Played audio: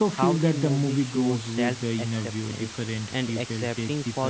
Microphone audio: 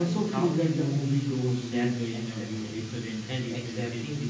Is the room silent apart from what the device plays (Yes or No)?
Yes